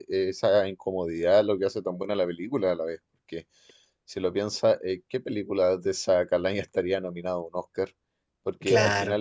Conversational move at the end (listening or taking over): listening